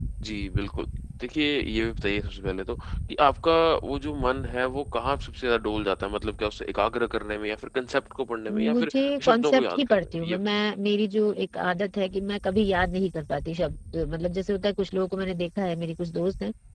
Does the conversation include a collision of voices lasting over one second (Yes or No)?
Yes